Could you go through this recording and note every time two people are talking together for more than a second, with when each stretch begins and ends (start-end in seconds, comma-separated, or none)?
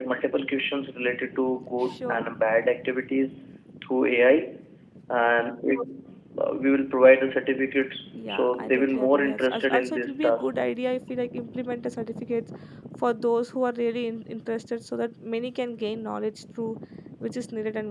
8.3-10.5